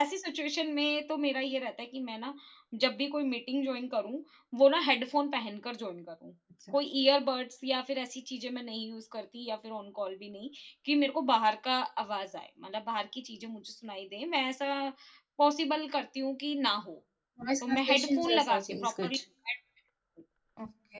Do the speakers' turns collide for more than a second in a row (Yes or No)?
Yes